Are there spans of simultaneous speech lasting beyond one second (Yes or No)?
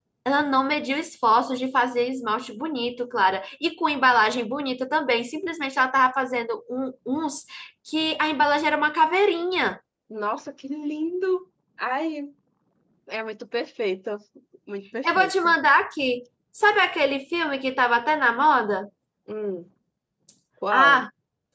No